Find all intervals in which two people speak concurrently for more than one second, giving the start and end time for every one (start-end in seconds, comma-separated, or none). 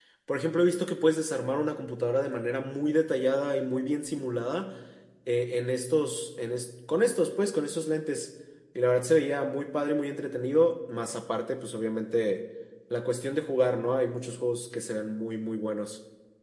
none